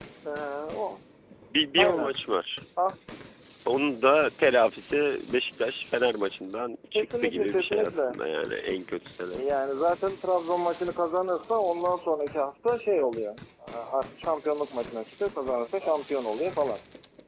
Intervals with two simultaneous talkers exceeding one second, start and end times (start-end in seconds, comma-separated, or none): 6.9-8.2